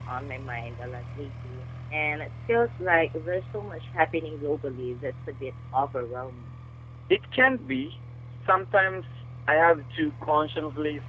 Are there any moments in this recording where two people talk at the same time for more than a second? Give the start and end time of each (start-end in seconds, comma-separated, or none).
none